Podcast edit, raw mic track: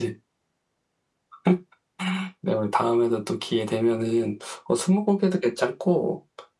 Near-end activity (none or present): none